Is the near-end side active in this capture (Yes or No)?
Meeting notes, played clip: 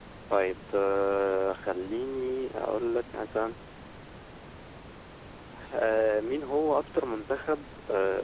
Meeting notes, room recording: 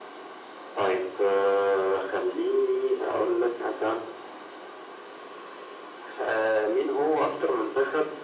No